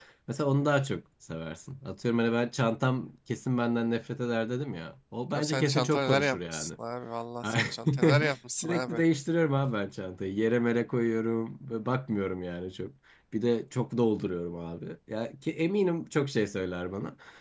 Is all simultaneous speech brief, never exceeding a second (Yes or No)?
No